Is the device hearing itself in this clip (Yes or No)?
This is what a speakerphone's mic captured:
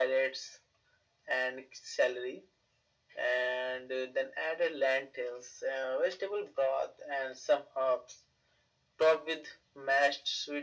Yes